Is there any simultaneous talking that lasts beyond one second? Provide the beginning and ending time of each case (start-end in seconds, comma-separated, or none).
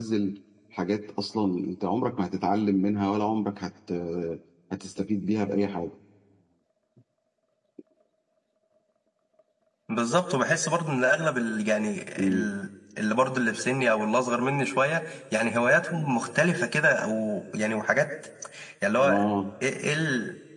none